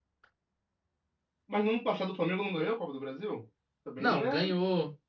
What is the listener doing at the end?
taking over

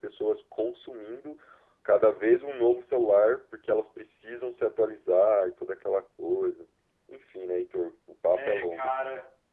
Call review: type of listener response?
taking over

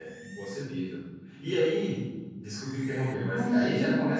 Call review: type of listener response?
listening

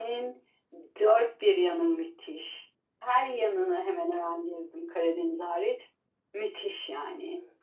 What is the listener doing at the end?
taking over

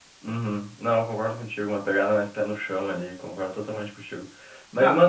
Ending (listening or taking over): listening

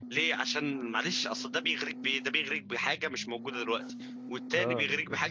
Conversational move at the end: taking over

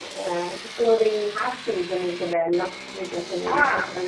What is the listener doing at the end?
listening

